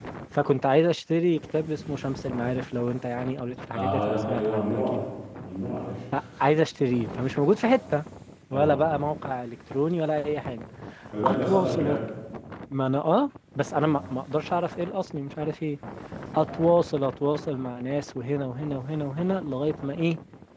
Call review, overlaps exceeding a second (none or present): present